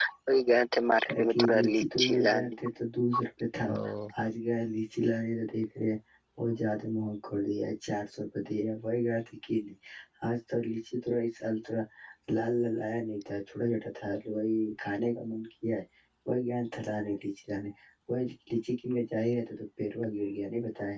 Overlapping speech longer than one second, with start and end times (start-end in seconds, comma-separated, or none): 1.0-2.5